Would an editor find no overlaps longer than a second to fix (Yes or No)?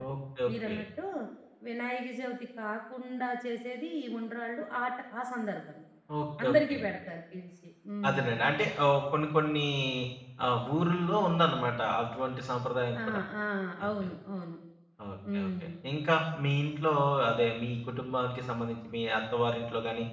Yes